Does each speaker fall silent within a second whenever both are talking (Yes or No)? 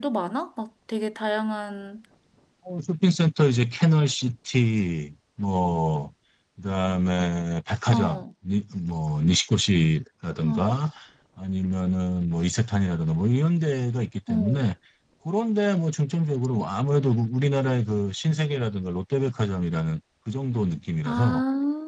Yes